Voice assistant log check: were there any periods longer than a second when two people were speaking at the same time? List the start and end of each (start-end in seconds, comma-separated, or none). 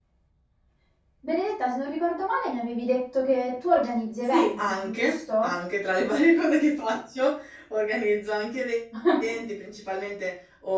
4.3-5.5